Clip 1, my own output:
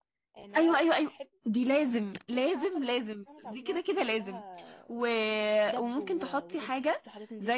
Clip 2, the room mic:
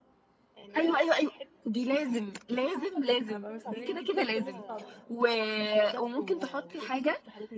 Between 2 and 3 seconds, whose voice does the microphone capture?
echo only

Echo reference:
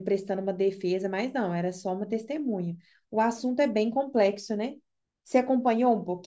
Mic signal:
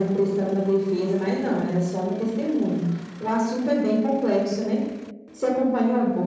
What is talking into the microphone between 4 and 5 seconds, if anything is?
echo only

